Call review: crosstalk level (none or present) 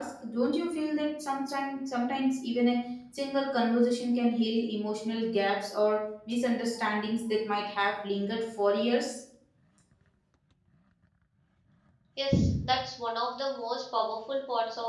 none